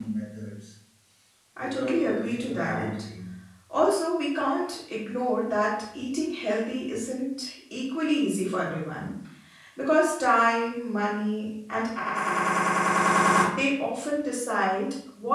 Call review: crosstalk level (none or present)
present